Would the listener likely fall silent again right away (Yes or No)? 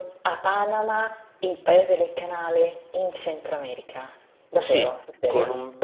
No